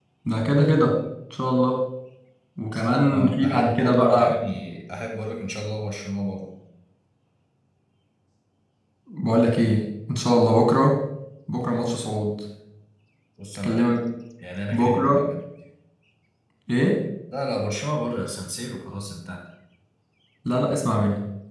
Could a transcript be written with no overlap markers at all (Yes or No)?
No